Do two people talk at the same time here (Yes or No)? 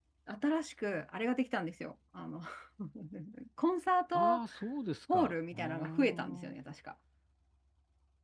Yes